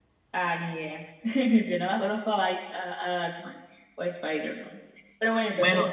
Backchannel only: No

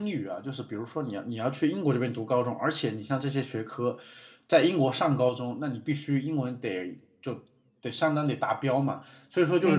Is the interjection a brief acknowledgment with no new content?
Yes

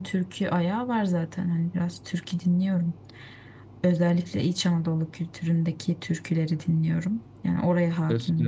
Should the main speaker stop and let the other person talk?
Yes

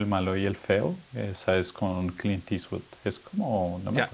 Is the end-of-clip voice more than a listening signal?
Yes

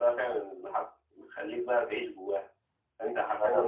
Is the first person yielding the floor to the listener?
No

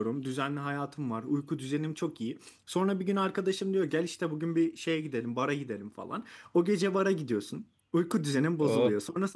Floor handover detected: No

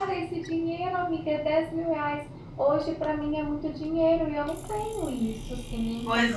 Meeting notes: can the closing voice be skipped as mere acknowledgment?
No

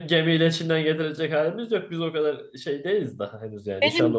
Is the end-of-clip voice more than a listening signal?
Yes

